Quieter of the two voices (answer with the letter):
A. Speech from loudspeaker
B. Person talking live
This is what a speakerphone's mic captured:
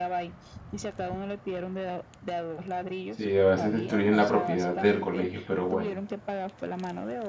A